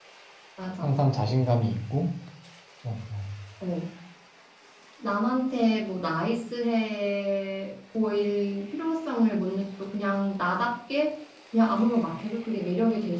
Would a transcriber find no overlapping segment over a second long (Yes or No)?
Yes